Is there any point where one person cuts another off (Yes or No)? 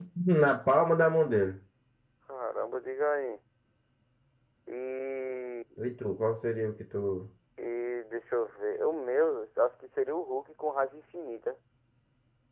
No